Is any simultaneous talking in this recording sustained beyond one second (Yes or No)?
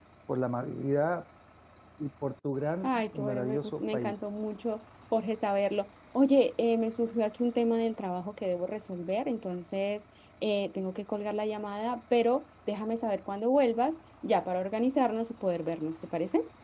Yes